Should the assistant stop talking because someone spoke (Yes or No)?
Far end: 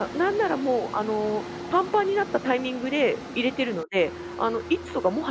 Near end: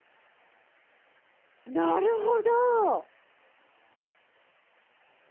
Yes